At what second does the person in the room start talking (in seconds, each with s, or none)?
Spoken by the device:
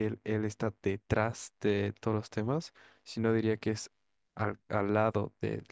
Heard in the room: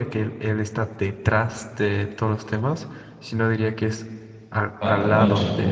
4.8 s